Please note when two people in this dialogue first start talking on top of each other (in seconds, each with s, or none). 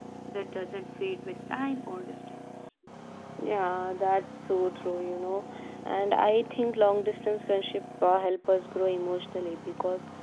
none